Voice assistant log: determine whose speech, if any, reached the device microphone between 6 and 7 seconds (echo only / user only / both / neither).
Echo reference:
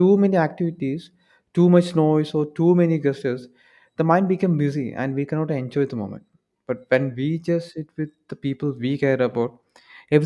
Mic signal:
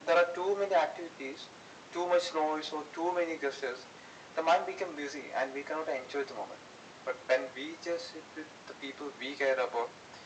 echo only